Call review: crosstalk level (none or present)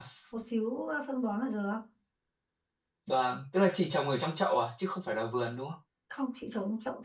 none